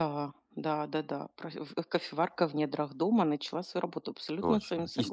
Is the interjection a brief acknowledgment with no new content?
No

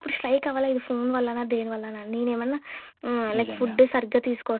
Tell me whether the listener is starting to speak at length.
No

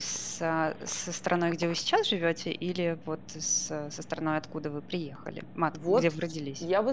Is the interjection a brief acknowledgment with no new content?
No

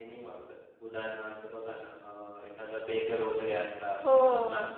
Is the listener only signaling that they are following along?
Yes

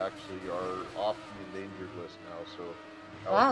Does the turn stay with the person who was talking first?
No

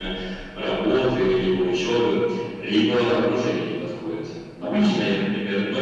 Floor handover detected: No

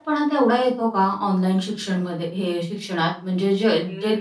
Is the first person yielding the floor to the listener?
No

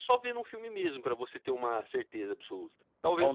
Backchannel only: No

